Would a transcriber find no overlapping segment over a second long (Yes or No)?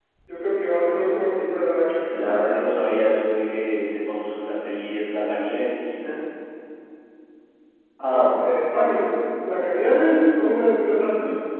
Yes